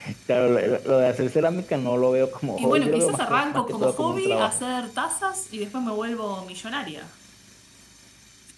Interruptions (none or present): present